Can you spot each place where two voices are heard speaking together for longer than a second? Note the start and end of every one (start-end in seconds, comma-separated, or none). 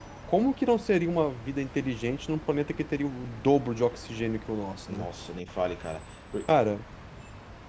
none